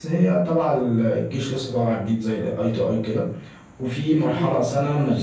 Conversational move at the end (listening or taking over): listening